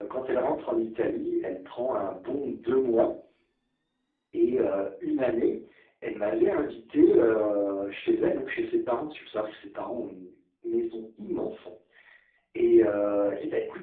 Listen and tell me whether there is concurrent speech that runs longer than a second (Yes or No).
No